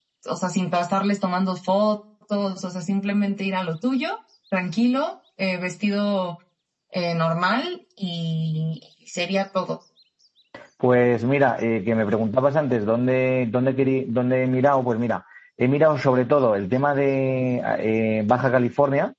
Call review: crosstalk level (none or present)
none